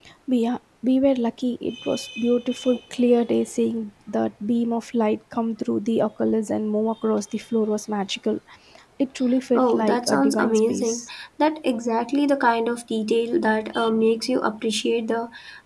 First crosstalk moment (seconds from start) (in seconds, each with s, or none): 9.6 s